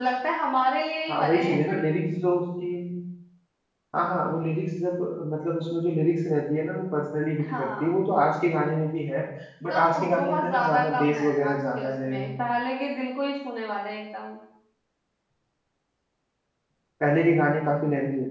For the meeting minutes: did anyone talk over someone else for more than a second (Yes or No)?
Yes